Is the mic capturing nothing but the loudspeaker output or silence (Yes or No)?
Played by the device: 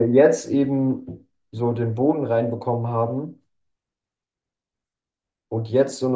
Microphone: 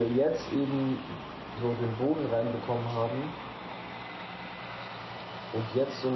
Yes